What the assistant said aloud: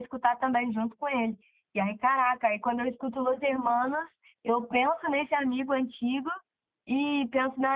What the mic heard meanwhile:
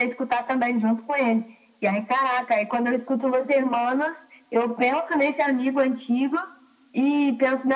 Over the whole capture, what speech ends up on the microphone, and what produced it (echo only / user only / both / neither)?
echo only